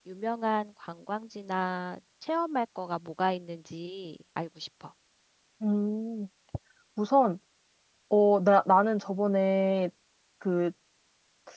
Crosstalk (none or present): none